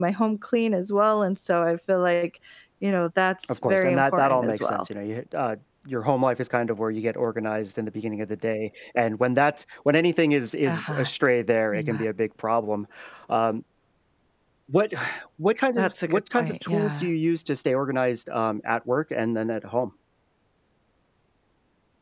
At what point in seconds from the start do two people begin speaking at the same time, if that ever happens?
3.5 s

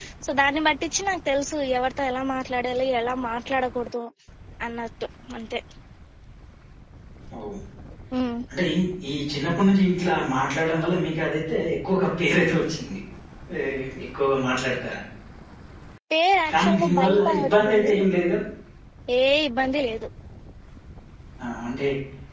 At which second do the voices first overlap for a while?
16.5 s

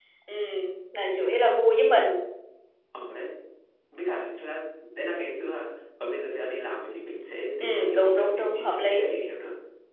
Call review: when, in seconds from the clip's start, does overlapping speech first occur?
7.6 s

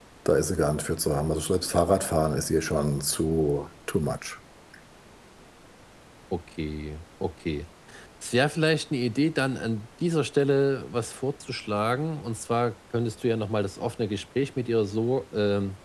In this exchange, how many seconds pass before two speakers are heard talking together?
none

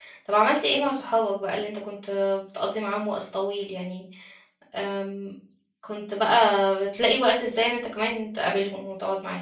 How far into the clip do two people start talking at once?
none

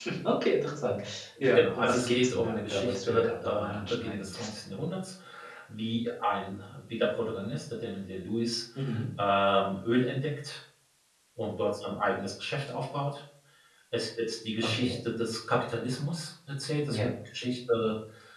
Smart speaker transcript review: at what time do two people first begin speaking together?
1.6 s

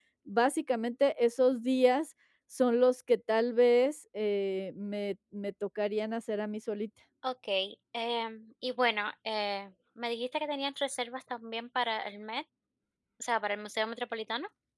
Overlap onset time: none

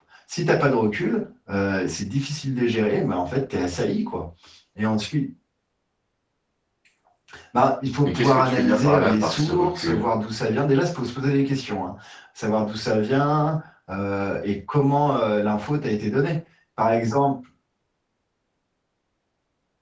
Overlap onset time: 8.1 s

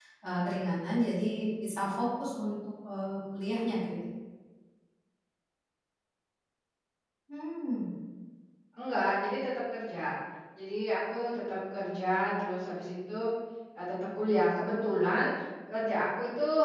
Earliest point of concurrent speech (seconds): none

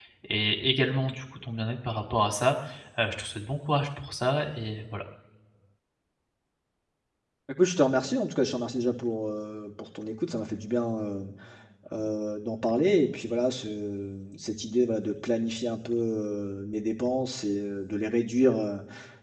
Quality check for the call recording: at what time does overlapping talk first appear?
none

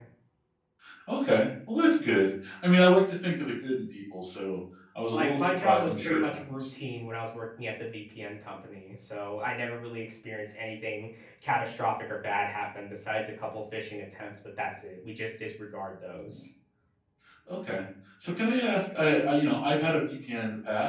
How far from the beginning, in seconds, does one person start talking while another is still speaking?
5.1 s

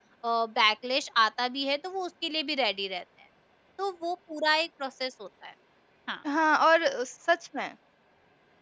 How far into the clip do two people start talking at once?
none

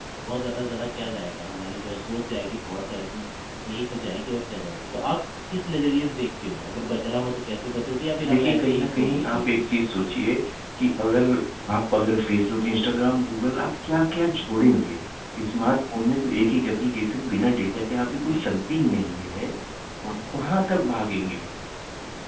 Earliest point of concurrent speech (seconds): 8.2 s

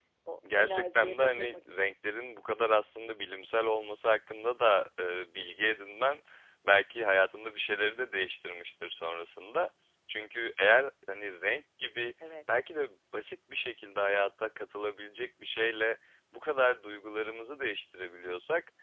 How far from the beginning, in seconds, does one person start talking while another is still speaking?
0.6 s

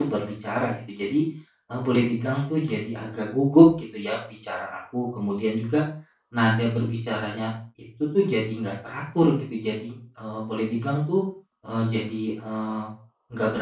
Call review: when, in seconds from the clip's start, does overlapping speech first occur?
none

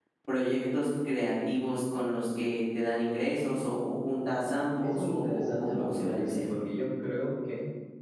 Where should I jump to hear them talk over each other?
4.8 s

